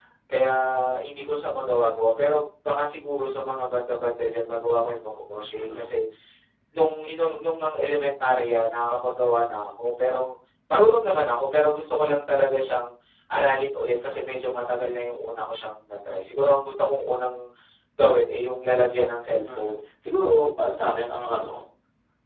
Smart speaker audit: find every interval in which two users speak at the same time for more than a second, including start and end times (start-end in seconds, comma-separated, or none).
none